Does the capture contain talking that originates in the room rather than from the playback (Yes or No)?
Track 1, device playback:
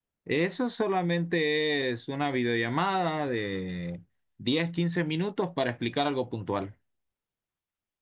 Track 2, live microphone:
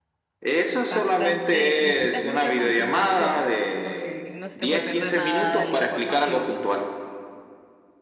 Yes